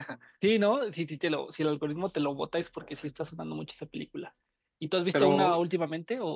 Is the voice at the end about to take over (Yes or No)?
No